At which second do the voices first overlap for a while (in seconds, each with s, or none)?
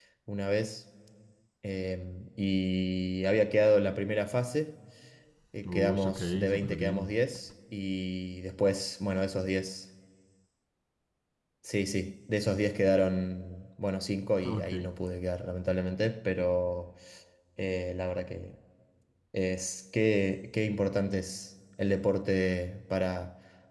5.7 s